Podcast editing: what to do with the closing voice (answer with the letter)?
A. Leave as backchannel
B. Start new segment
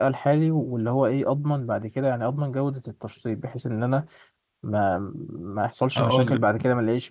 A